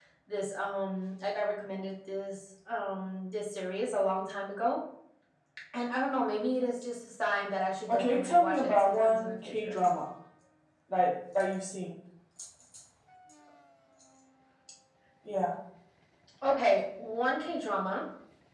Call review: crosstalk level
present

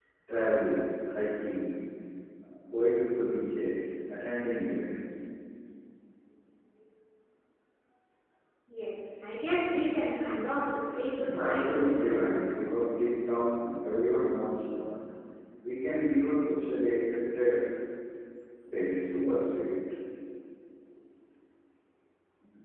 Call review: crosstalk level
present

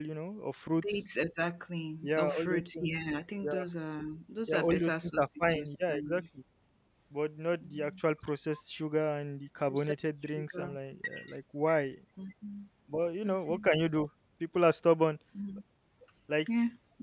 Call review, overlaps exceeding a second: present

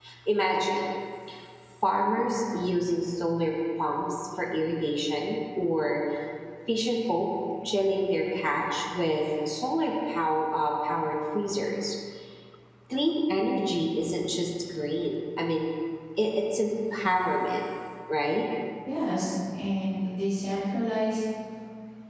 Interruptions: none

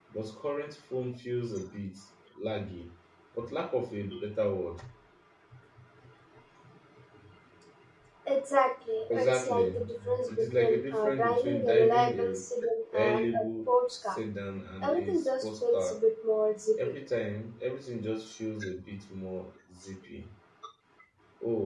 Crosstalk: present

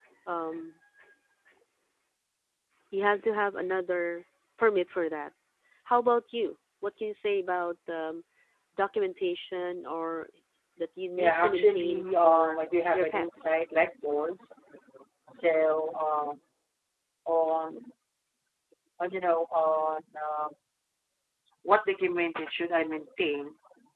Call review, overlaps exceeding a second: present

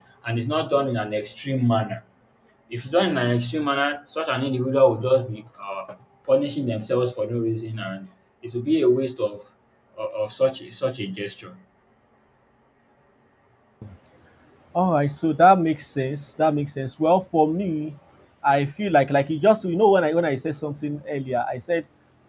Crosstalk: none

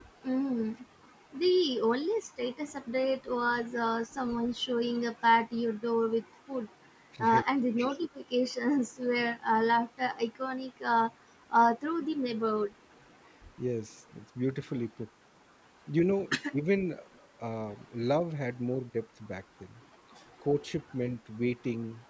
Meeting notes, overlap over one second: none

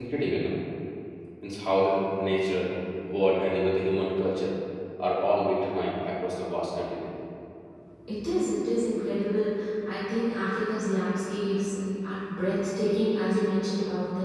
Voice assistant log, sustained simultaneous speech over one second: none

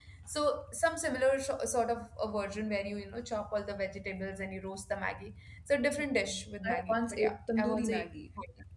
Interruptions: present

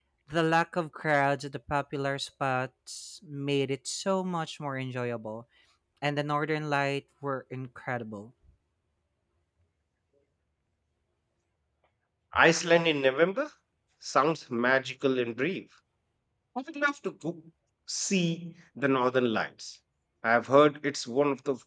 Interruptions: none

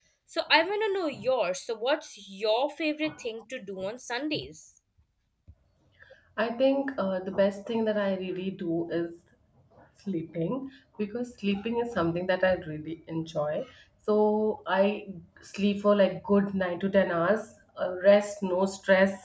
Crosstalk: none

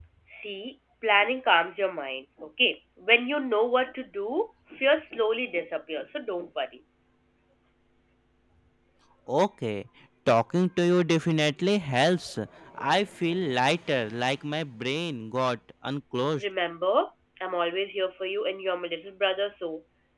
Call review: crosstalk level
none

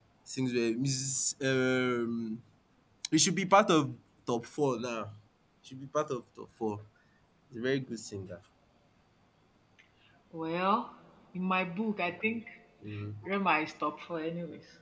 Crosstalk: none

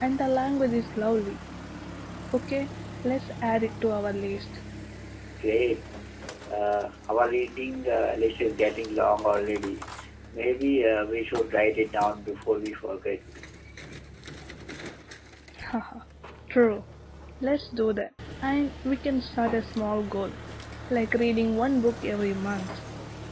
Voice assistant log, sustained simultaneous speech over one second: none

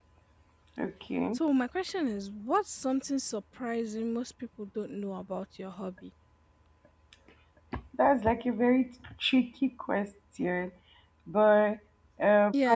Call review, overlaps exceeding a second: none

